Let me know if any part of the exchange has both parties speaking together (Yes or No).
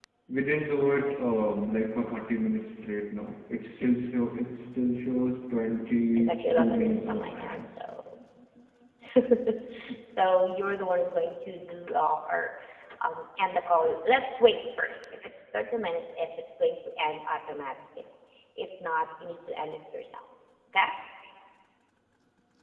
Yes